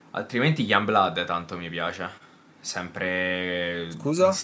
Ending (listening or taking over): listening